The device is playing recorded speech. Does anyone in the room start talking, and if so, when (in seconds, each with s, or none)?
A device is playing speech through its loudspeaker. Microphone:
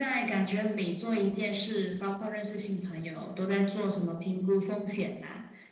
none